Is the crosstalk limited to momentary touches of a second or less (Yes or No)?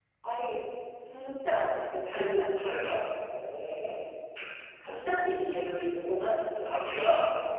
Yes